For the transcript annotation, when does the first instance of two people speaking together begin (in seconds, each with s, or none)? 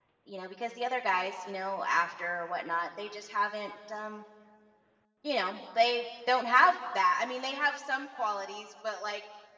none